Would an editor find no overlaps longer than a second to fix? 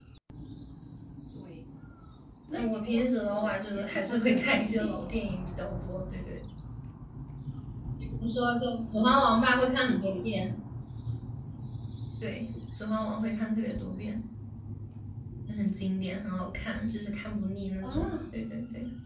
No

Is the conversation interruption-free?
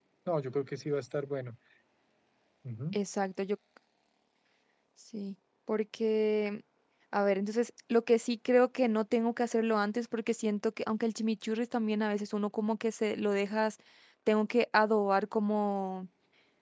Yes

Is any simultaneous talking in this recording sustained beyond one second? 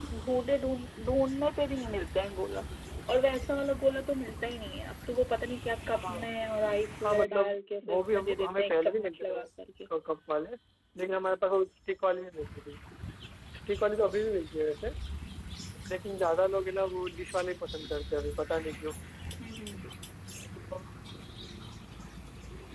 Yes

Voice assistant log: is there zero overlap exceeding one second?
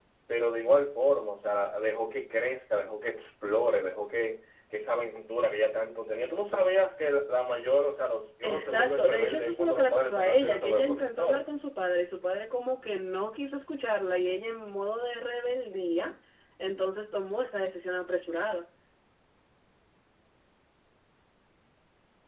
No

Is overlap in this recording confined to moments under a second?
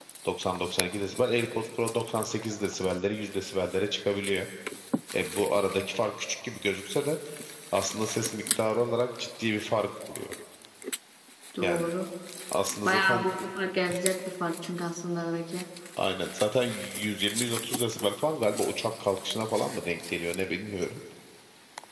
Yes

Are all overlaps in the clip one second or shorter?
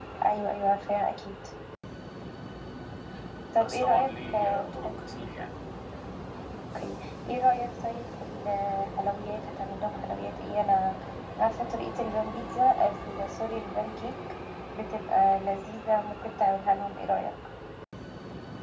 No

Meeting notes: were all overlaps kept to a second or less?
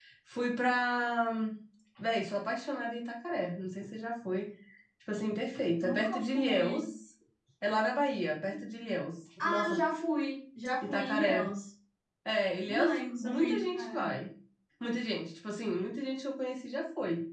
No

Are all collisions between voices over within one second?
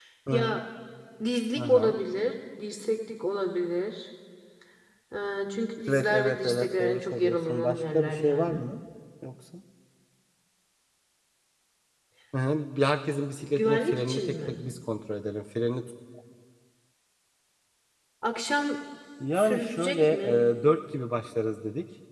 No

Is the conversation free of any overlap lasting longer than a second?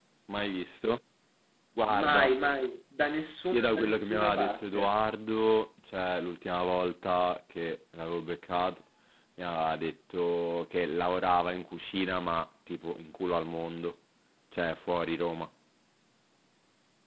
No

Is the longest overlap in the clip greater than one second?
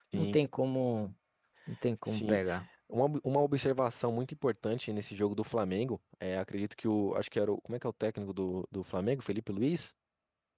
No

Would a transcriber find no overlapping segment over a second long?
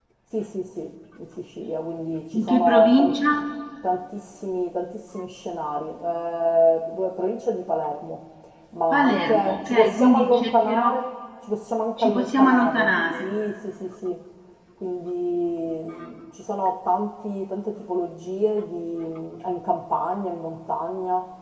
No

